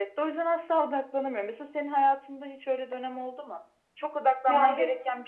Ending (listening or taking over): listening